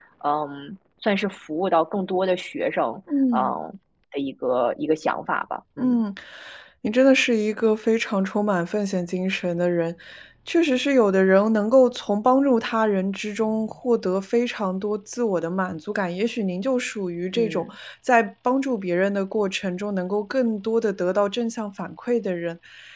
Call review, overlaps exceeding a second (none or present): none